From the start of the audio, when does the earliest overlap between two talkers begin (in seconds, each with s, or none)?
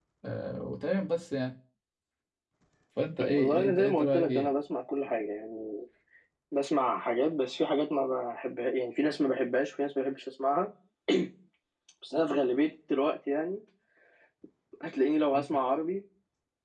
3.2 s